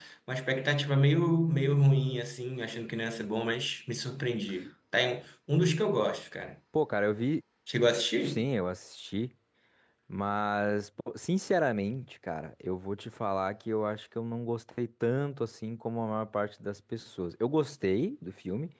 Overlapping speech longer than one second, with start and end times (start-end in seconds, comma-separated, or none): none